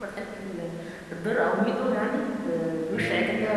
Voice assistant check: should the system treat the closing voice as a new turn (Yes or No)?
No